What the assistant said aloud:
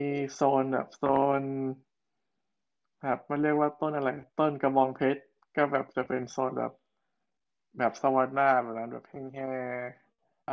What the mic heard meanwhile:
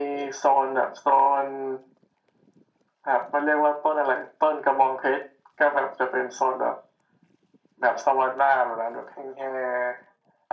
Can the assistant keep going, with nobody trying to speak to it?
Yes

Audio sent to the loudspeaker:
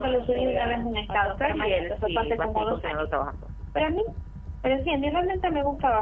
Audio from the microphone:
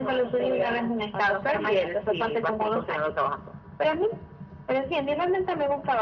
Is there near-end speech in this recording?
No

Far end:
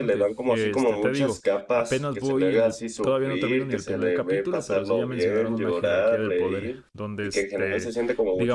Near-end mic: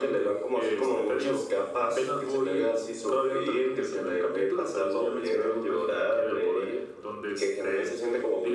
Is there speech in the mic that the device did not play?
No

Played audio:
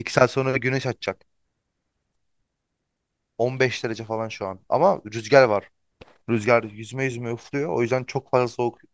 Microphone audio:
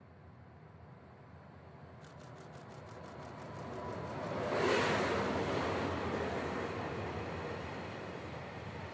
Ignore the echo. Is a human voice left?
No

